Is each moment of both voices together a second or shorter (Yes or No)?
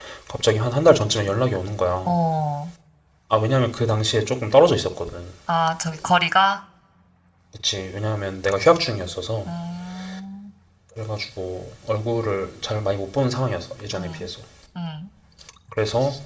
Yes